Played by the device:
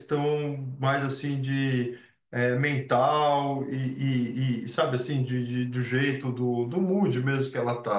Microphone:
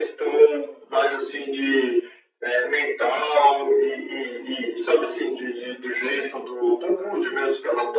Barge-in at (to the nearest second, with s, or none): none